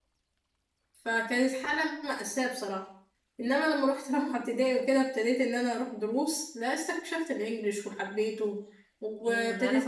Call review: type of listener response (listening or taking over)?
taking over